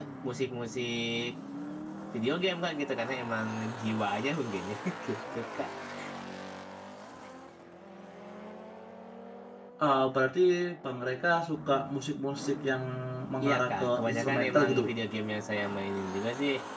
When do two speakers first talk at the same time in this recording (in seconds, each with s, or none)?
13.4 s